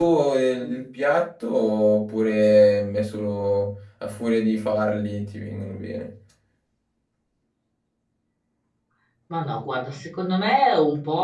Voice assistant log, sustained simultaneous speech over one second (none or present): none